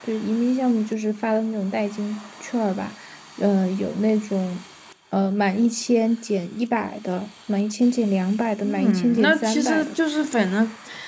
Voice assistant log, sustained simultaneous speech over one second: present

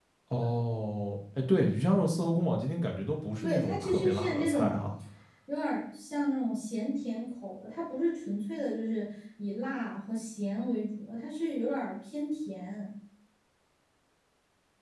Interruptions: present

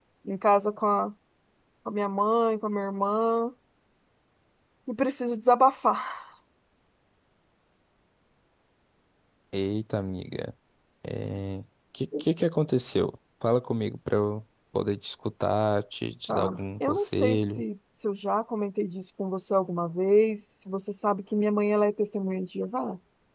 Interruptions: present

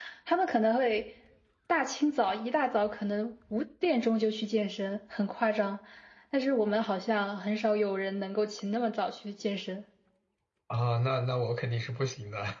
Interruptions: none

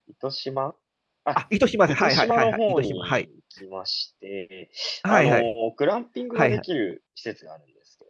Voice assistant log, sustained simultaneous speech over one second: present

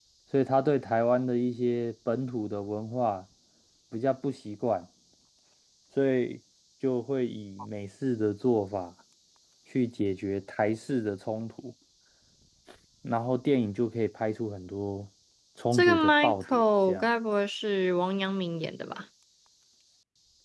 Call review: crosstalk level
present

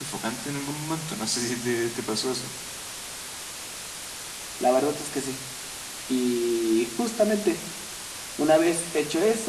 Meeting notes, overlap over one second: none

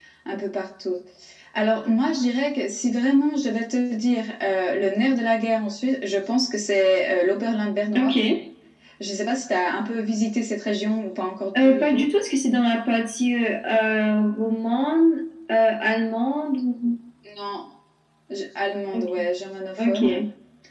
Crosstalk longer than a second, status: none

